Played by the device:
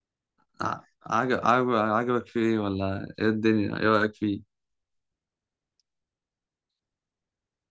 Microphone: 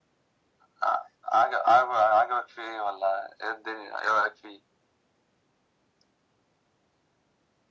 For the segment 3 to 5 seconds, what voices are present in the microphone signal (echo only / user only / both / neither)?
echo only